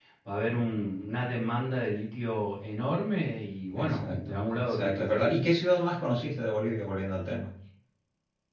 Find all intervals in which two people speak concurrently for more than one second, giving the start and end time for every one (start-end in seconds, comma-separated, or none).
3.7-5.3